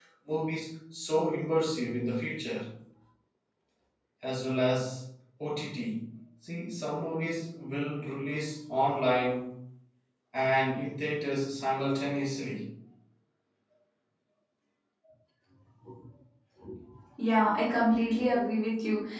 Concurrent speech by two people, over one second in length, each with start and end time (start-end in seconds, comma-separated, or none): none